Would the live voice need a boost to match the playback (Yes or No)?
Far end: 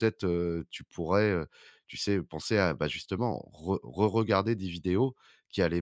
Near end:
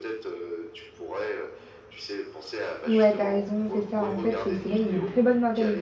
No